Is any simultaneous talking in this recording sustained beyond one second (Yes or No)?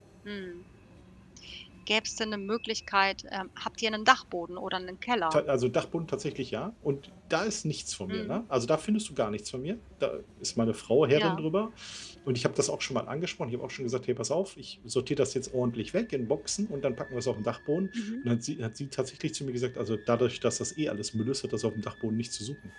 No